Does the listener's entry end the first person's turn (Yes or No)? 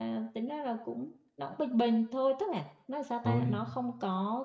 No